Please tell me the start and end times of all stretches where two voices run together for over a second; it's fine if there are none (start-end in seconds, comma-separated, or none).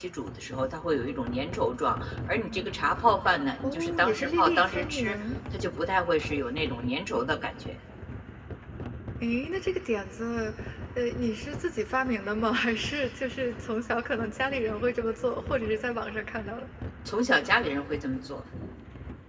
3.6-5.2